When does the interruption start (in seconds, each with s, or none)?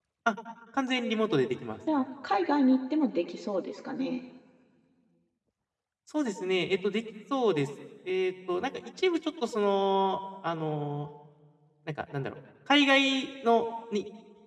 none